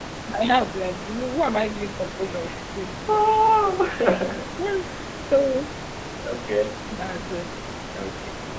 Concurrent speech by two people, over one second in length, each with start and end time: none

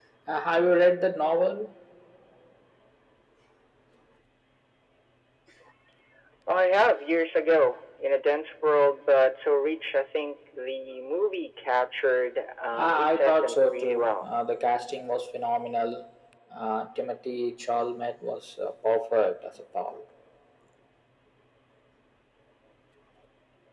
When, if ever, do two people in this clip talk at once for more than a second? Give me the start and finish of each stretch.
12.7-14.3

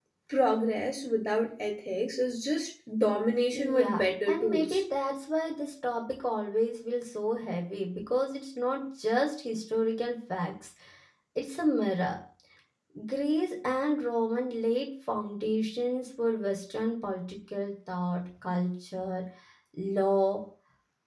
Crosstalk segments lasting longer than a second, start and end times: 3.5-4.8

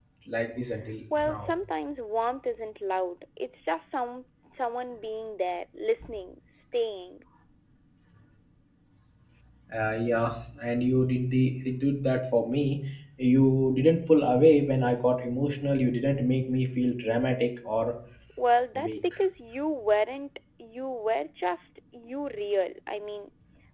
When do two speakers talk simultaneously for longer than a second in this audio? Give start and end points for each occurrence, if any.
none

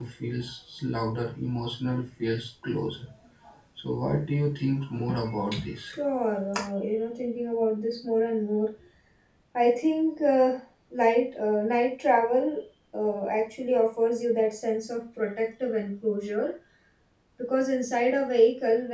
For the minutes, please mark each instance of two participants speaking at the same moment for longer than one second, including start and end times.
none

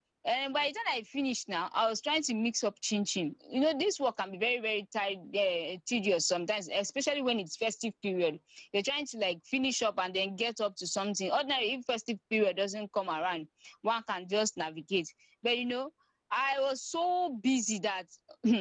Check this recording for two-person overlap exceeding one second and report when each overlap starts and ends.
none

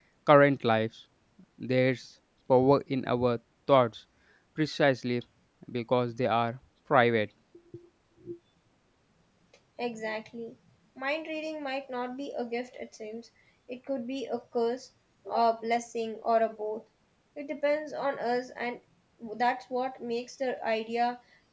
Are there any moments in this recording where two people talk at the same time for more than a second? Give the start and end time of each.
none

